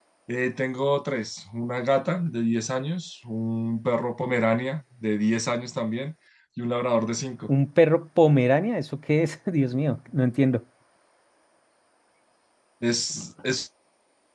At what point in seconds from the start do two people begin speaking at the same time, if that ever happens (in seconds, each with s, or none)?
none